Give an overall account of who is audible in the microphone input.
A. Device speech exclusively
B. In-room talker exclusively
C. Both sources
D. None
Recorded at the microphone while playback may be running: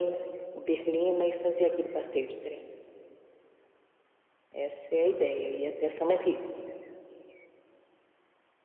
A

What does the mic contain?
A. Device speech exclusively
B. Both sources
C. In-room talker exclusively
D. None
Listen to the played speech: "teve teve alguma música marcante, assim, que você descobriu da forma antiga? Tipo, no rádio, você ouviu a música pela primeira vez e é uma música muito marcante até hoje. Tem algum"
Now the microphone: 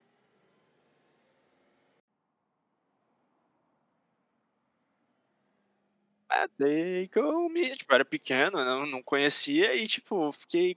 C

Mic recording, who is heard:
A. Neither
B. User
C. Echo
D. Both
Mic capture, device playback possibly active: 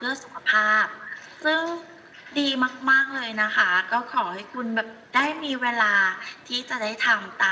C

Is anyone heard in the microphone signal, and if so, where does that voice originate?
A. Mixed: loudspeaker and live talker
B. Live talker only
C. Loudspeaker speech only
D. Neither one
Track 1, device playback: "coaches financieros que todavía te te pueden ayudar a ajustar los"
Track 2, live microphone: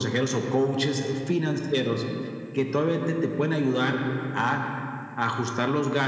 C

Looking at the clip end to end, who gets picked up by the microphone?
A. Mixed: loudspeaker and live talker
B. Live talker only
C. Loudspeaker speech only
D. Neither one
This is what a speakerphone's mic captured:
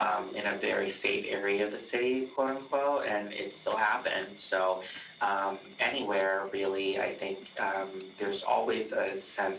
C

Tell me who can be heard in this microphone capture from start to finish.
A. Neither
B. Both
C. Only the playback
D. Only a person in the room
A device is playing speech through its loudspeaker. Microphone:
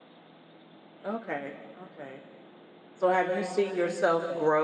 D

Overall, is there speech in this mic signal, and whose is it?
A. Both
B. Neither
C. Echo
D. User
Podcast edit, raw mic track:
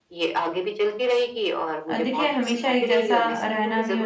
A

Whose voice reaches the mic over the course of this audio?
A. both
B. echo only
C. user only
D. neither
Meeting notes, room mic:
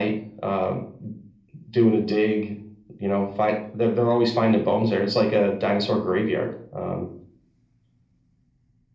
B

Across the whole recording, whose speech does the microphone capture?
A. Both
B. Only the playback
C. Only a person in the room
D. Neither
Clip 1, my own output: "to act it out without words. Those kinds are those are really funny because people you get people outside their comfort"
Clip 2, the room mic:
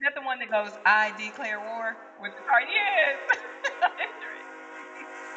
C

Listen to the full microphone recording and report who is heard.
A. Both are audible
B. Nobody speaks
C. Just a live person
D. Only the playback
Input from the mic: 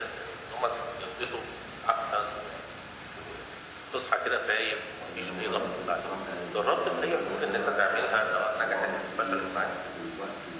A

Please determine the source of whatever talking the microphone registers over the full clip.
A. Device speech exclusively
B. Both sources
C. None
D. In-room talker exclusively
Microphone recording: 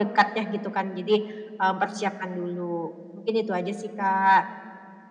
A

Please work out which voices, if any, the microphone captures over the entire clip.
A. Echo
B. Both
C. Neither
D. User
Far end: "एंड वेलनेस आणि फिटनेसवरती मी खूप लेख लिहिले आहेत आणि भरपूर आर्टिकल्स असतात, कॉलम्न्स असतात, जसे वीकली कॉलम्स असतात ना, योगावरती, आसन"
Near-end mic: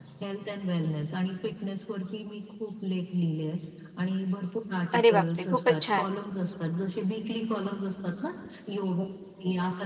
B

